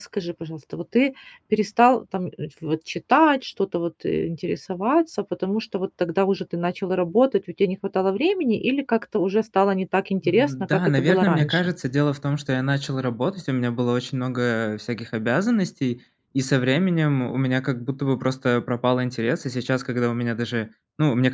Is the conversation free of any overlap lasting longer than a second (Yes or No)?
No